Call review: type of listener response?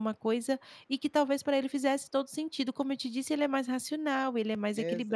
taking over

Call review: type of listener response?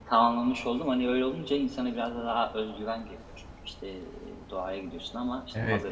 taking over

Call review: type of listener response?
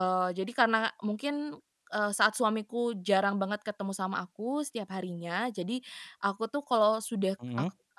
listening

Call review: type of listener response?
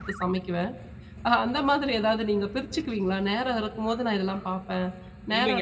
taking over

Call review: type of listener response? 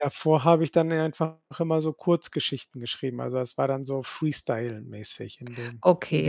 taking over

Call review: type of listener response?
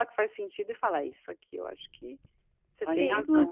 taking over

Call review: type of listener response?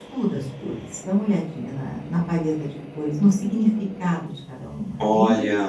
taking over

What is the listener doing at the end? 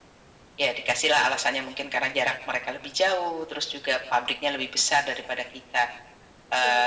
listening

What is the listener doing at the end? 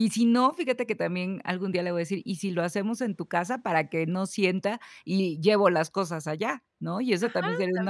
taking over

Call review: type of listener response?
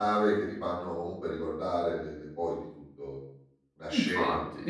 taking over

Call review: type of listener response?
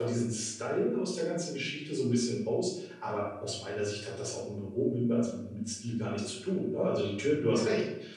listening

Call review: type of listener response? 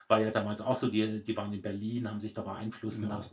listening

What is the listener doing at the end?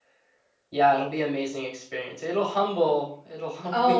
taking over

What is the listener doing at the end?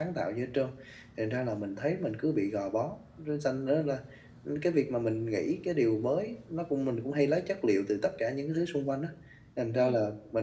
listening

